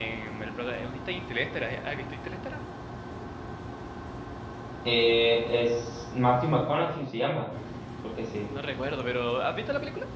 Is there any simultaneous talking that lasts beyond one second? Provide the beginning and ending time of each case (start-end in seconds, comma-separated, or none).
none